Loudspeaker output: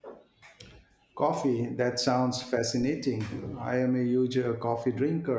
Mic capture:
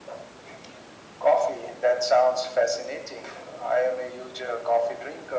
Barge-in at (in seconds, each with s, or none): none